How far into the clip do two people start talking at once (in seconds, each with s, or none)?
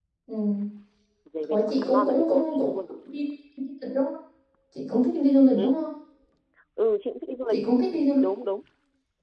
1.5 s